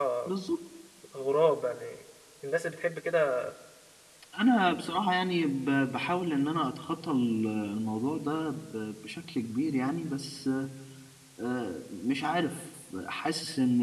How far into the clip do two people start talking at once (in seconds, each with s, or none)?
none